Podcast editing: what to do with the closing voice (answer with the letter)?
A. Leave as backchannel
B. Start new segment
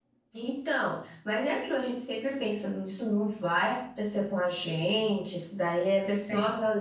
A